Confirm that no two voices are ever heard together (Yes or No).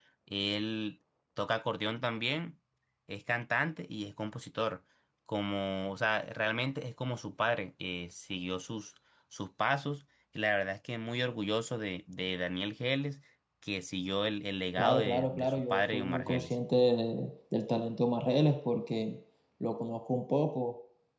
No